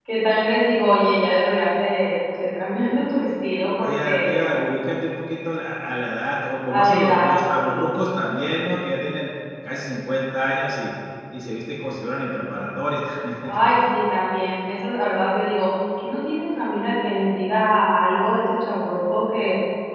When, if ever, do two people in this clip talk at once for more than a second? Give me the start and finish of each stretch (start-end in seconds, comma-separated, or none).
6.7-7.9